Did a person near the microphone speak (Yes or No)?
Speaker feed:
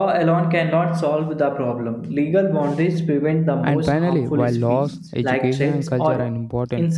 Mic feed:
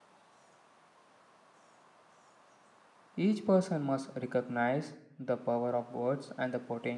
Yes